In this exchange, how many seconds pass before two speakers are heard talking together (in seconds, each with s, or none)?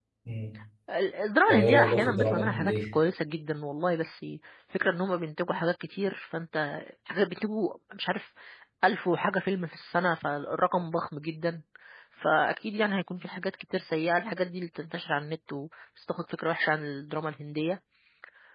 1.5 s